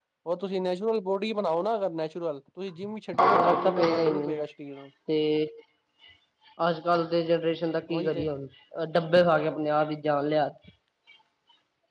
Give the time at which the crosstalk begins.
3 s

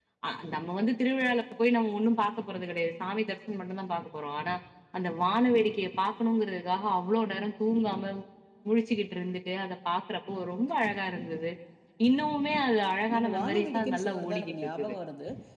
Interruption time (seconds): 13 s

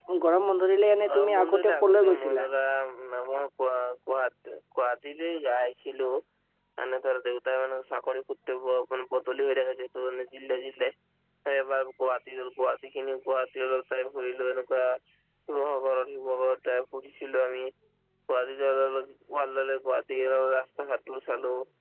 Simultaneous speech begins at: 1 s

